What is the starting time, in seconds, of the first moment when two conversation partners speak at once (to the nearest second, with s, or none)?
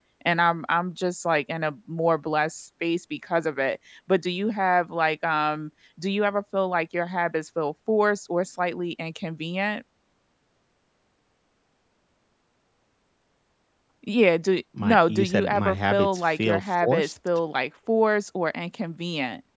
15 s